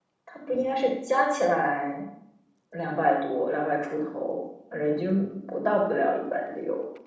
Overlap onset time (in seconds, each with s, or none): none